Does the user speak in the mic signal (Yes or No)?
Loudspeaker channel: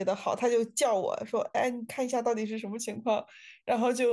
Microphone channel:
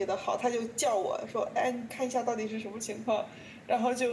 No